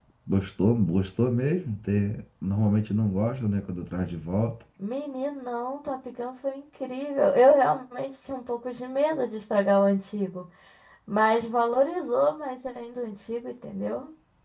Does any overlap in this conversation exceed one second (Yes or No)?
No